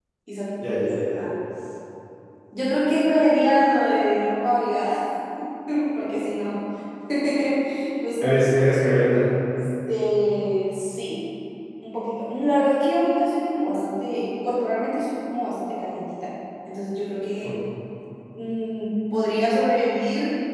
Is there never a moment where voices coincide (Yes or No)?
Yes